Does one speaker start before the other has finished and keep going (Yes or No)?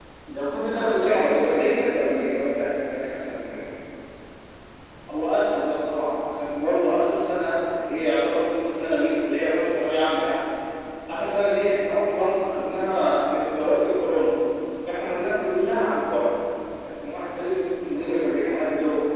Yes